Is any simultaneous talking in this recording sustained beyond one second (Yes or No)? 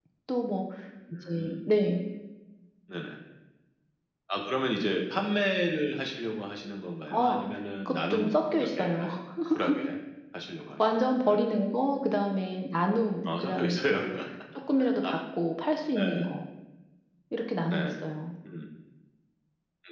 Yes